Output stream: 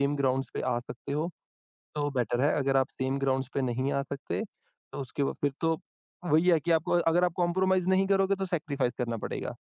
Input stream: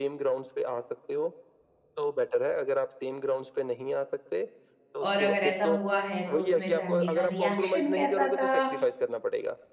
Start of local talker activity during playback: 5.1 s

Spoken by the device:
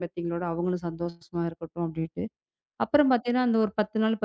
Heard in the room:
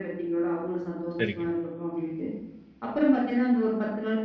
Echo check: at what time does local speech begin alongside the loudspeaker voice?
1.2 s

